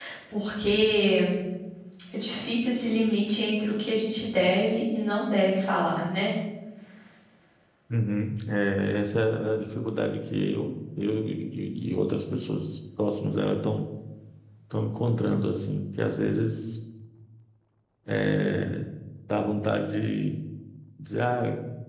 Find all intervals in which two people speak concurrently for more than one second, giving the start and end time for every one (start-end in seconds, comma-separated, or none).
none